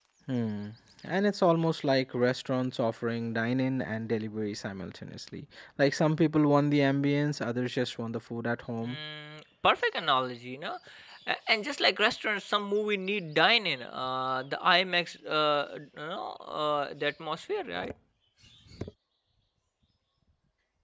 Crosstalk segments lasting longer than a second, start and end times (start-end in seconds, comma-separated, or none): none